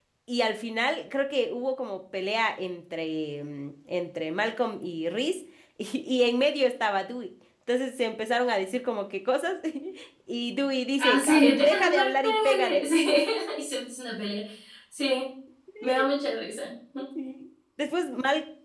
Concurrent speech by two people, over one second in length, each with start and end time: 11.0-12.8

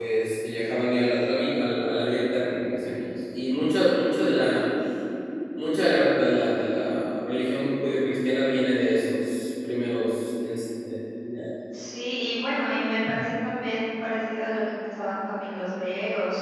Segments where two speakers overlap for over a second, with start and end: none

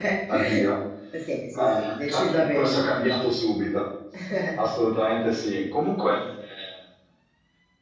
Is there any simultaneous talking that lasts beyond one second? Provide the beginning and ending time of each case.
1.6-3.0

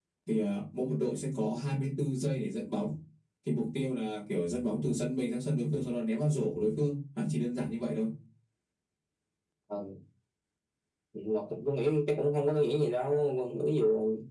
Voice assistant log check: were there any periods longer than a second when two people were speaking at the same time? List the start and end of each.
none

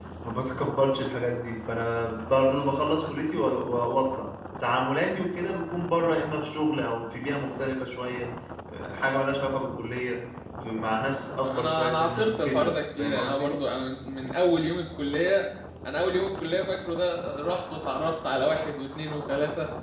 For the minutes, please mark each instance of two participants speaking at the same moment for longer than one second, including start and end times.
11.4-13.5

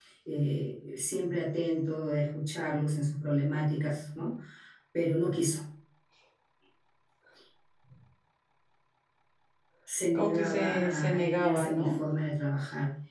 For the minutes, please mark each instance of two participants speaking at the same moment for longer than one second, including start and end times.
10.2-12.0

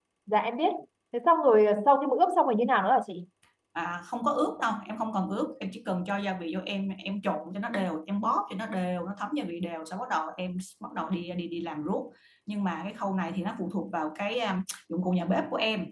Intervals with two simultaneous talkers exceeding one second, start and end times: none

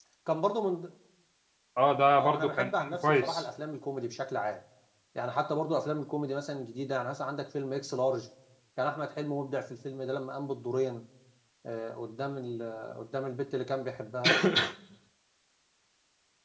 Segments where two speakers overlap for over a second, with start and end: 2.2-3.4

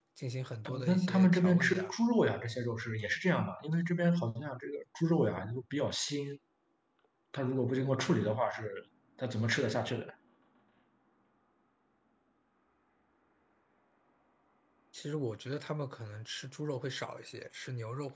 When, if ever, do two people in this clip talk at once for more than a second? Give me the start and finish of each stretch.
0.7-1.9

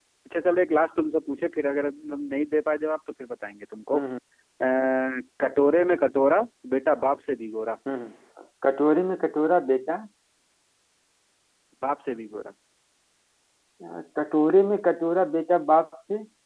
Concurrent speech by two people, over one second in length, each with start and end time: none

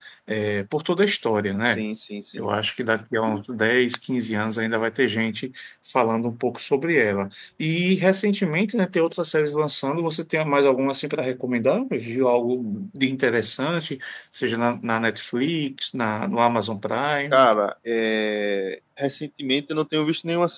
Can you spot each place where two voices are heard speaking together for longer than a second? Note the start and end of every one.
none

